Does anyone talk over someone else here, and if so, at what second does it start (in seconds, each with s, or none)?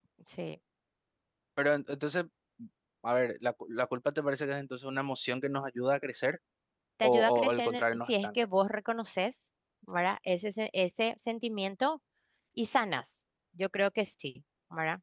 7.0 s